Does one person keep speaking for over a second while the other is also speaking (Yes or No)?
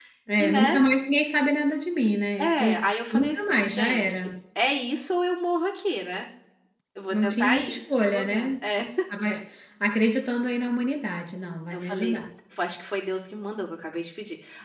Yes